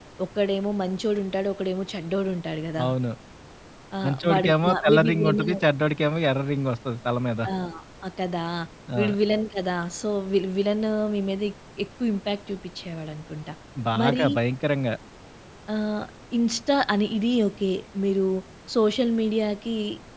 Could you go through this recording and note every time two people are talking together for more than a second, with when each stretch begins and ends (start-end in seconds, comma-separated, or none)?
4.0-5.6